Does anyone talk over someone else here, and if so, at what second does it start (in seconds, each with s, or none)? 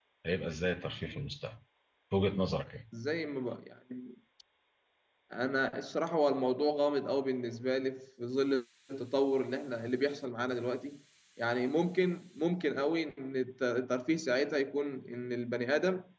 none